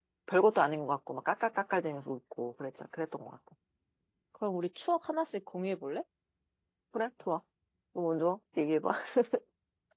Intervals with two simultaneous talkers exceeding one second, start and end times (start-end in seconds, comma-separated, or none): none